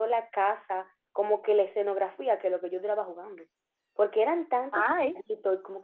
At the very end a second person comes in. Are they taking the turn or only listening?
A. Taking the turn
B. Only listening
B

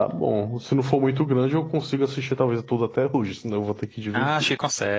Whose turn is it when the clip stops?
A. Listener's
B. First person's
A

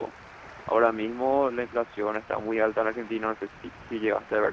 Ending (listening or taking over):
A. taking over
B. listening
A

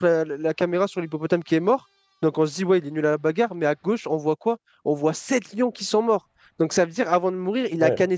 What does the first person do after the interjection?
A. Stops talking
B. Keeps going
B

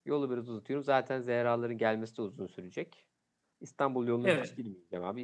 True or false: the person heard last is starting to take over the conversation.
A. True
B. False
B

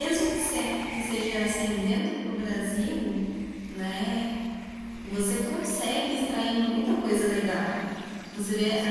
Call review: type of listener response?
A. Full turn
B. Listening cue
B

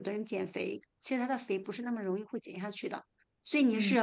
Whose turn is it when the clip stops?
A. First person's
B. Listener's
A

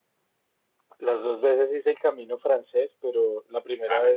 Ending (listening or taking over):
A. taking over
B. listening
B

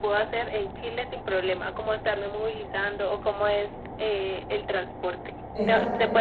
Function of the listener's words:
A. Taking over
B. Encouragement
B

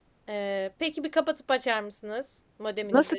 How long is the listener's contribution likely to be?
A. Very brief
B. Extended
B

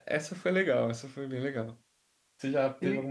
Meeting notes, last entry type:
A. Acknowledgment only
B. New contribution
A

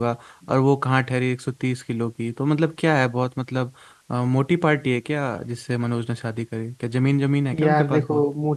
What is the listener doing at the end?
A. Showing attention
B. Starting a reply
B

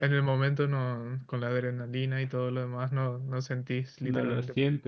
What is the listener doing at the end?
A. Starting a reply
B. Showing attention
A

